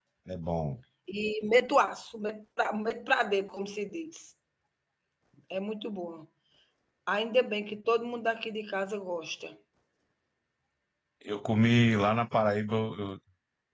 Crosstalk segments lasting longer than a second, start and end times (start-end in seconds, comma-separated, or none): none